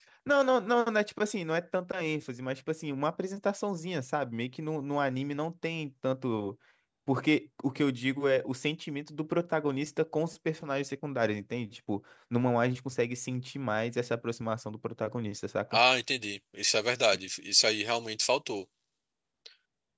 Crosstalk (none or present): none